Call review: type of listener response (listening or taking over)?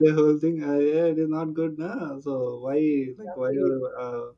listening